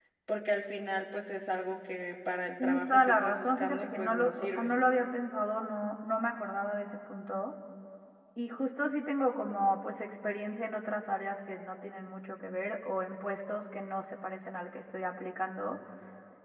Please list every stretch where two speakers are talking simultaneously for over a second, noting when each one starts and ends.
2.6-4.7

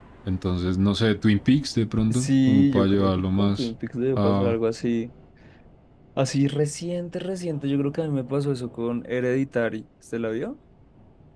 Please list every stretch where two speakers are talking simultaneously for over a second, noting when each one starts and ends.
2.1-3.7

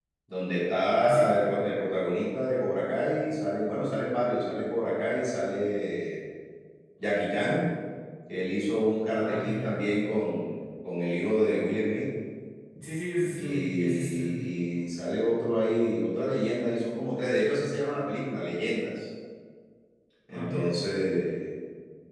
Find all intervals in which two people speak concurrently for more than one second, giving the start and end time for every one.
13.2-14.4

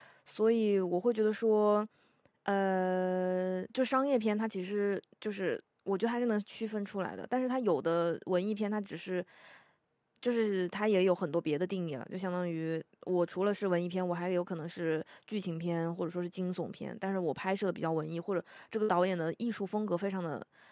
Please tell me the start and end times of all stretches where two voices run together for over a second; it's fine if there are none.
none

